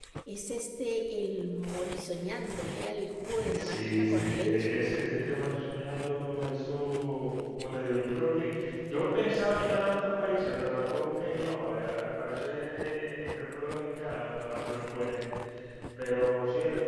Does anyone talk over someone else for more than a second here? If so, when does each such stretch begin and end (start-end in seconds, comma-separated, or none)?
3.5-4.8